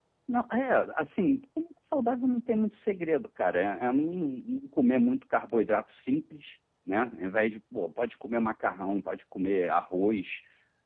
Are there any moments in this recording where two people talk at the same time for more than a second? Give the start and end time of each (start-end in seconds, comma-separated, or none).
none